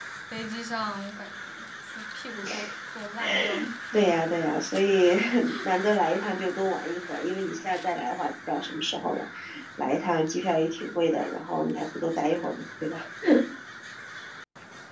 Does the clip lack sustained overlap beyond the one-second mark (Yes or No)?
Yes